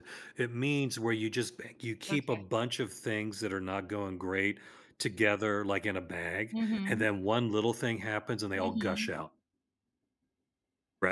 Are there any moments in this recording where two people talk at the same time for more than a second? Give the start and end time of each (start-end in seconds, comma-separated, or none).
none